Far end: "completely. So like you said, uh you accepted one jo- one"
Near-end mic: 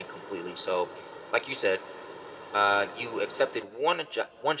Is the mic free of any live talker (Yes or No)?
Yes